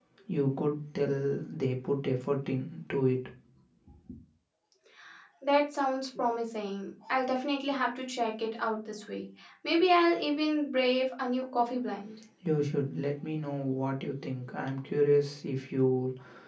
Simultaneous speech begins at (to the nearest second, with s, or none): none